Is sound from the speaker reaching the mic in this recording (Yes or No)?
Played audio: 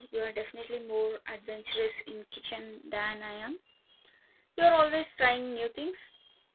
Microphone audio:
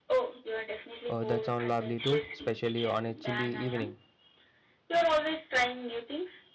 Yes